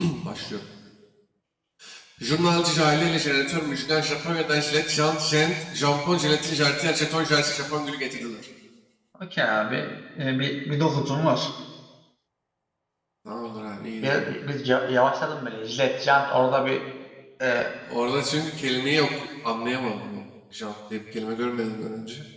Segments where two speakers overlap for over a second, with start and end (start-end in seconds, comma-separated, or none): none